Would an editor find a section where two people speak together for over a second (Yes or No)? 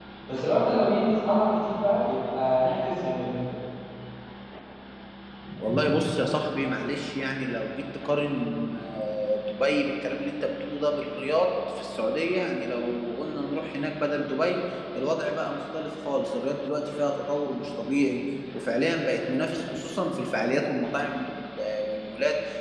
No